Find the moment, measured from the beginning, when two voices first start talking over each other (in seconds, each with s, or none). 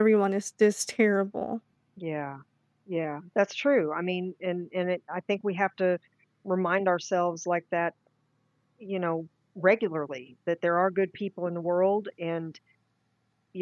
none